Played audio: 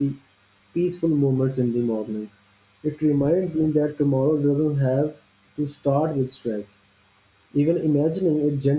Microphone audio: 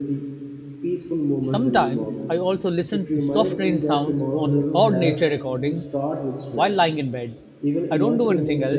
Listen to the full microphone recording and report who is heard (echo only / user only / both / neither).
both